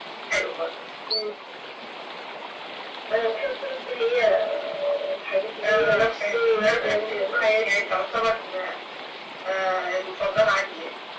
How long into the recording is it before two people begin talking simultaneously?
5.6 s

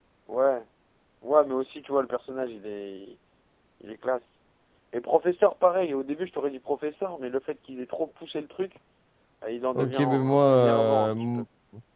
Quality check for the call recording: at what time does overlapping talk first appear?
9.8 s

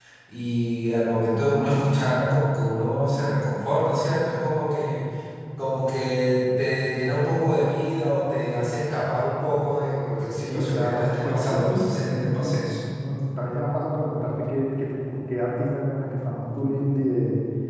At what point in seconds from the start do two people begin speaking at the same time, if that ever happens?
10.5 s

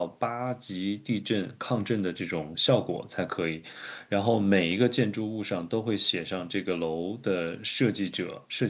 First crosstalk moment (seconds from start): none

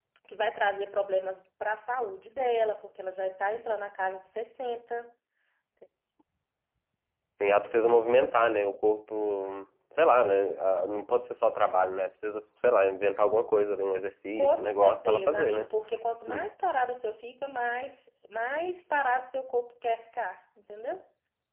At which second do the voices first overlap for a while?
14.4 s

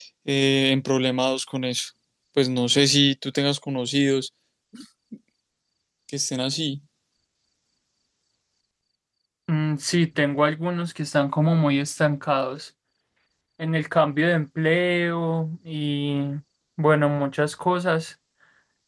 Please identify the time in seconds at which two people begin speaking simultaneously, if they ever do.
none

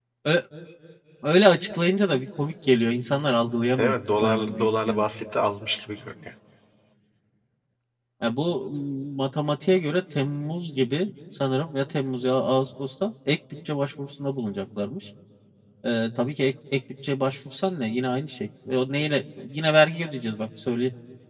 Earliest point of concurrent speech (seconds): 3.8 s

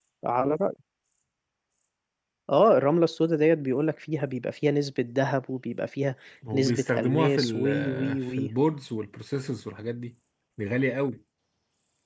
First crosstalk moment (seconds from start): 6.5 s

